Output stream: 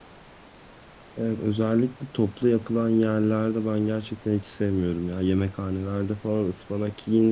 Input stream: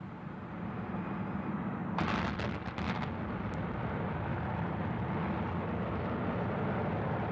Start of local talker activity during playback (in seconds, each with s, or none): none